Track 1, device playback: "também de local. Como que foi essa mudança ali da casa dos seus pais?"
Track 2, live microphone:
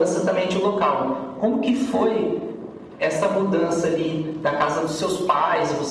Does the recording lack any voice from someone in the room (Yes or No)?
Yes